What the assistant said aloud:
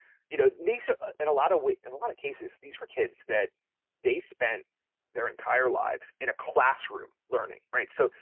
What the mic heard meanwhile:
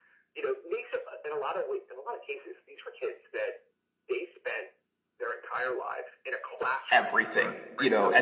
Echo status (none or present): present